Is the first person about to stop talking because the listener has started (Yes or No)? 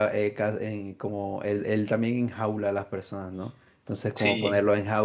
No